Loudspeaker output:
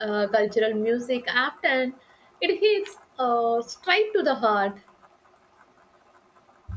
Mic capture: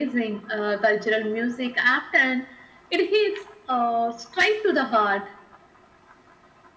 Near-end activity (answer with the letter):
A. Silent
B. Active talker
A